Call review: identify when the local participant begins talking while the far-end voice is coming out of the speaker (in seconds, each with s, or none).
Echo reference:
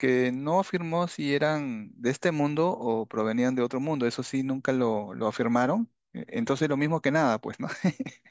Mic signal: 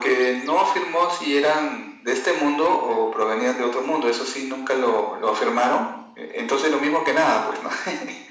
none